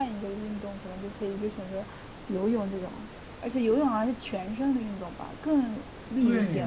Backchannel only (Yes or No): No